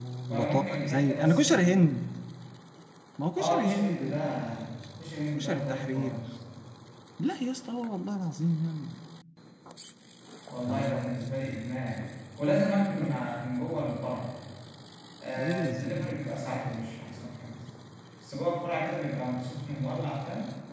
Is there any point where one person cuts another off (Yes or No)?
Yes